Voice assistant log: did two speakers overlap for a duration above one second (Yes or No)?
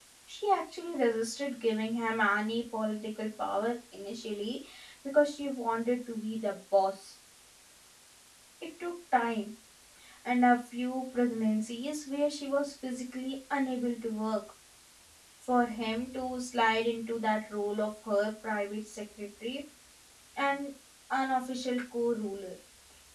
No